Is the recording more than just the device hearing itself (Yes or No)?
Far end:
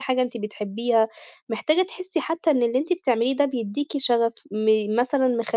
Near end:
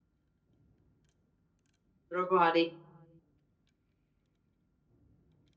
Yes